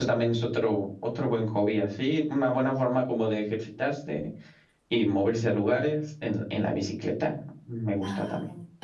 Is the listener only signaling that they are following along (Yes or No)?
No